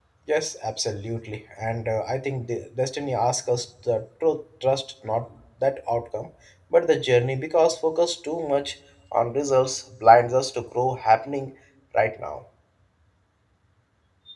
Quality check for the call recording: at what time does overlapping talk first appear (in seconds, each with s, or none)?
none